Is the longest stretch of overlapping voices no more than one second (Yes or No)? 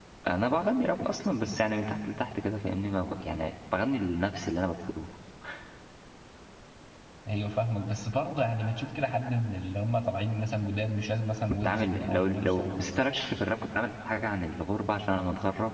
No